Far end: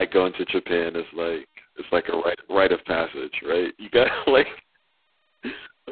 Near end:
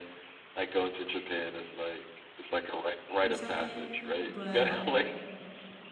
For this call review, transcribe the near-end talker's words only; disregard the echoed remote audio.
or something, but

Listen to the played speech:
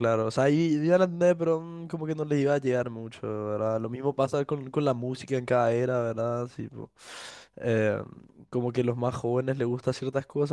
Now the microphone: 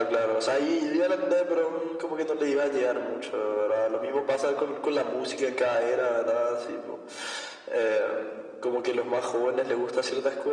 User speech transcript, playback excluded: none

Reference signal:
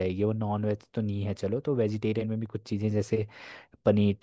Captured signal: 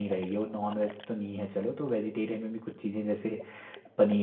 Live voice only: none

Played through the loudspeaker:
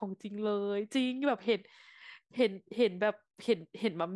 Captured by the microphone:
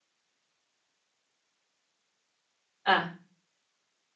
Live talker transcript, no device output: อ่ะ

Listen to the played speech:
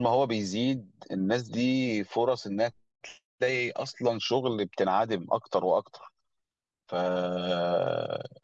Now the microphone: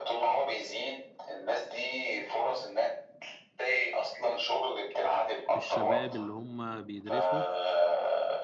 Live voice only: الشباب اللي هم بيدرسوا

